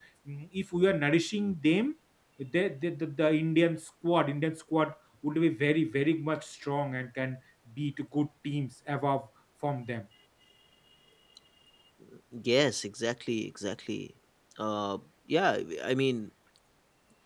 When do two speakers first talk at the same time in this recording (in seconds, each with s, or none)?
none